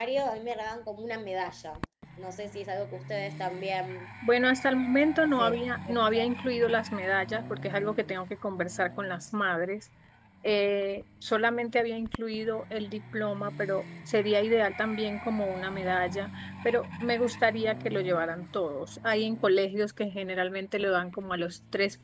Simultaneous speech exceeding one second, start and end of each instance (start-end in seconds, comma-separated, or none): none